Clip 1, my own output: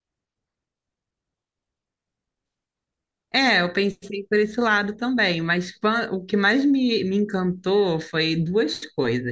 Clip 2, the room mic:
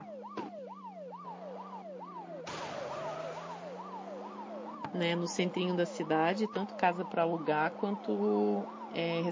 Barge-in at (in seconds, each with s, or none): 4.9 s